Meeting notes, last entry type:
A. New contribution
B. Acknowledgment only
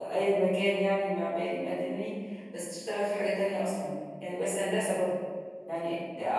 B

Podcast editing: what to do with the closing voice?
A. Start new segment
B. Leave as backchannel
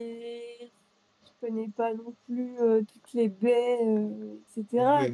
A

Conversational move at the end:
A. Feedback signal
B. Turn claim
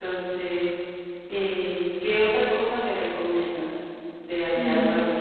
A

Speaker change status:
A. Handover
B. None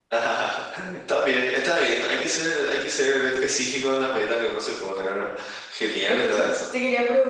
A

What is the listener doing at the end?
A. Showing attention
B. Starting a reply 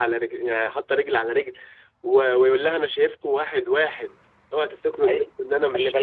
B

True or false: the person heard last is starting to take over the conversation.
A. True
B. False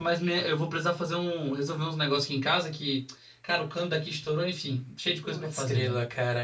A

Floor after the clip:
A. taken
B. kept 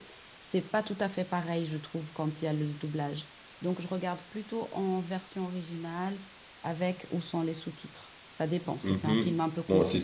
A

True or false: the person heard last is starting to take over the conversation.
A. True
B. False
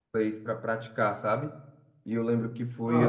B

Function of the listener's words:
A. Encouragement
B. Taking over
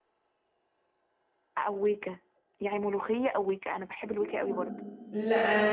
B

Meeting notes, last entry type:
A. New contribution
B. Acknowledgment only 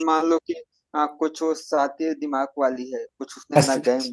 B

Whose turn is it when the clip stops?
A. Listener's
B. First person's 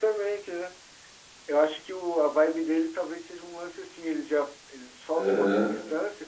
B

